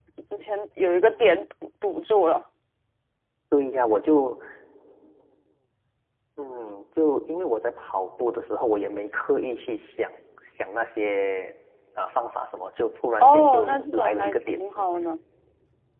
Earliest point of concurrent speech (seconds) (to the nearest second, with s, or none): 13 s